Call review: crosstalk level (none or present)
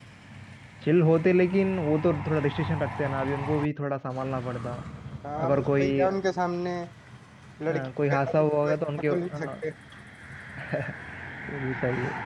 present